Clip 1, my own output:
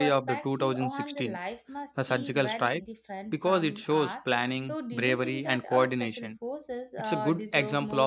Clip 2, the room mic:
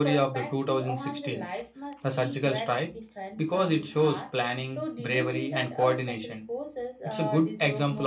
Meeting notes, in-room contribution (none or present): none